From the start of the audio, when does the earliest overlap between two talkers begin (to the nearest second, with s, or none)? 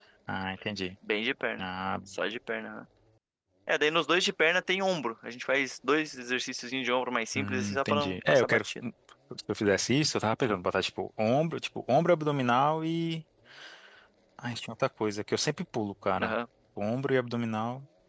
7 s